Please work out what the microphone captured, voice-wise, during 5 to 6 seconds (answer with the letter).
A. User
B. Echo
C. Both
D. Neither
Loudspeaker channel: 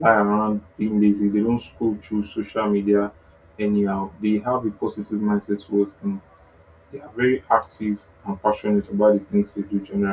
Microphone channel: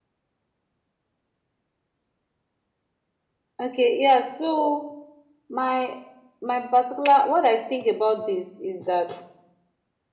A